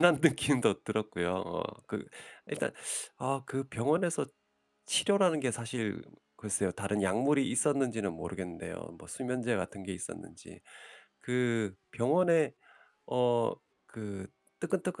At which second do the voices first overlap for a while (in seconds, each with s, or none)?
none